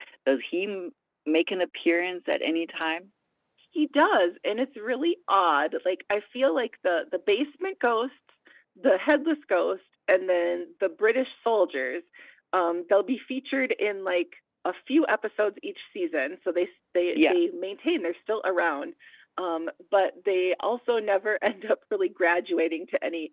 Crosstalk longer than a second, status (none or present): none